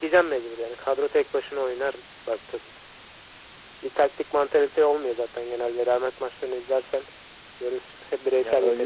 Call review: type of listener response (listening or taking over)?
taking over